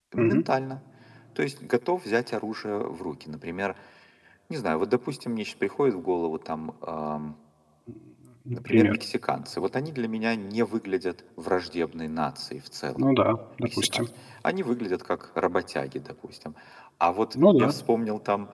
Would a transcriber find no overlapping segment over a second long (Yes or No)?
Yes